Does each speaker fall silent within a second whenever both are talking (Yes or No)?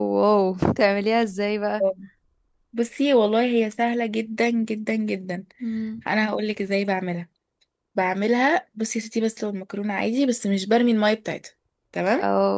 Yes